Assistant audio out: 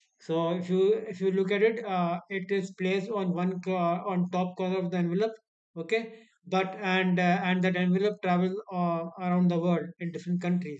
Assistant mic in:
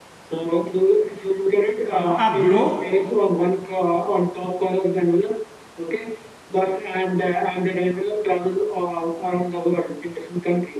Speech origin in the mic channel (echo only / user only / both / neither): both